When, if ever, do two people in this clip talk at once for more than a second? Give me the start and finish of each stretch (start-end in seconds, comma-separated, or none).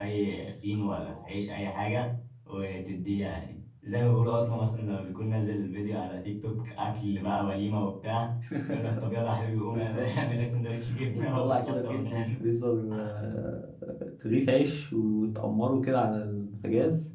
11.1-12.4